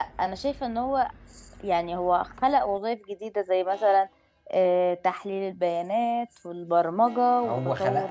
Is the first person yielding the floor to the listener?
Yes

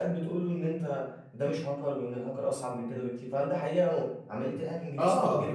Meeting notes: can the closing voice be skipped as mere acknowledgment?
No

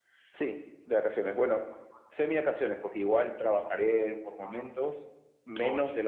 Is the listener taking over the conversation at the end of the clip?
No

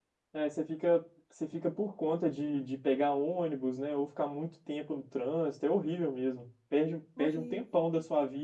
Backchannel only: Yes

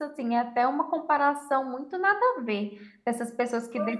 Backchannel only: Yes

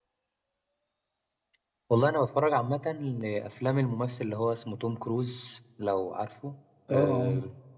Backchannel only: Yes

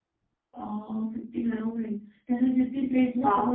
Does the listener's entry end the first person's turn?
No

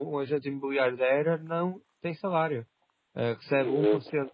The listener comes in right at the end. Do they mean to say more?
No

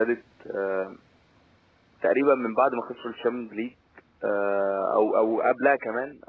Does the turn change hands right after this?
No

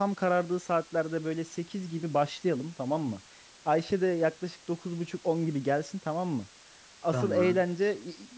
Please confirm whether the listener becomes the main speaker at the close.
No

